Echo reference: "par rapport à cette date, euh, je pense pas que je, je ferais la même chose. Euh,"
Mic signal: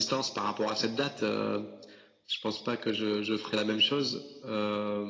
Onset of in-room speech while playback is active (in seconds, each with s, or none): none